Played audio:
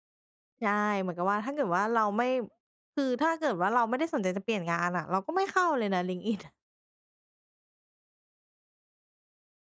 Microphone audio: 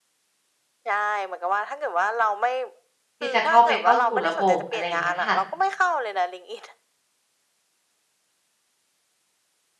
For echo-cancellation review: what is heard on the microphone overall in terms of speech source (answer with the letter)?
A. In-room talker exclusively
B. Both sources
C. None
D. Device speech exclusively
B